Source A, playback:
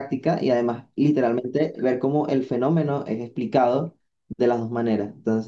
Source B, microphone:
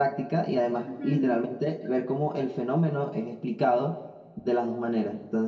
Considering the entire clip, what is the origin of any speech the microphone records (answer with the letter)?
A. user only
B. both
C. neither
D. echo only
B